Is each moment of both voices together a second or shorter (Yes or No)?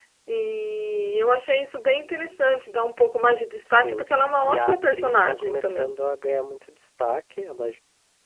No